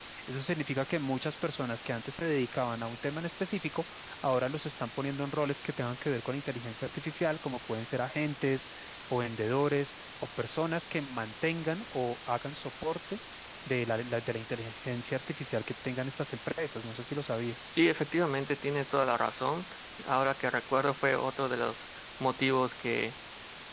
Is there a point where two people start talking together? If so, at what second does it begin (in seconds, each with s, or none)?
none